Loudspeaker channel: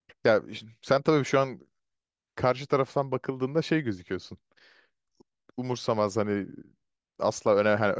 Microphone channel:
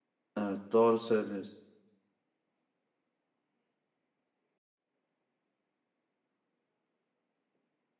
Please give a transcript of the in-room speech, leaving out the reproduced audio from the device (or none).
Evet doğru söylüyorsun.